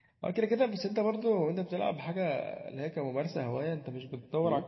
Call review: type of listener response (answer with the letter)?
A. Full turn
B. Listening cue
B